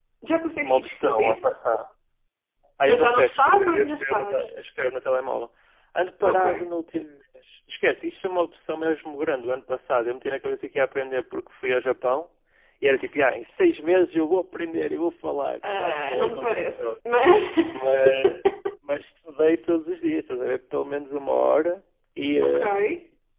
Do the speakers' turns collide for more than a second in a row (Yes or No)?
Yes